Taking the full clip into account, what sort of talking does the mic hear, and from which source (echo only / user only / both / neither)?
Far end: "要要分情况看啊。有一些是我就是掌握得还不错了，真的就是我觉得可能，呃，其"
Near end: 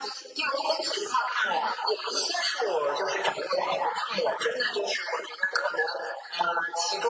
echo only